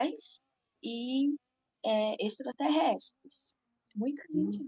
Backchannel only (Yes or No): Yes